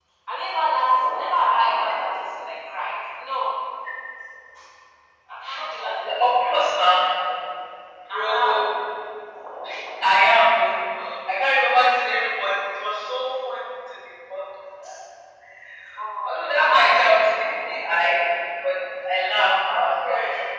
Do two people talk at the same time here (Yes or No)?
Yes